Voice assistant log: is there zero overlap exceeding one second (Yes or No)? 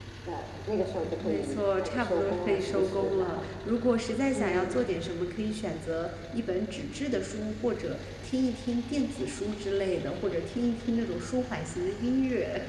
No